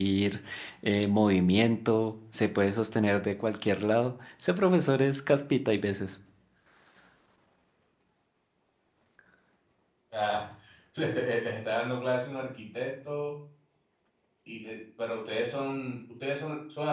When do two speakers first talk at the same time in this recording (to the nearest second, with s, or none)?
none